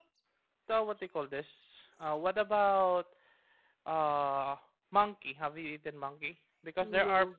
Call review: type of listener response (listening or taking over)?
listening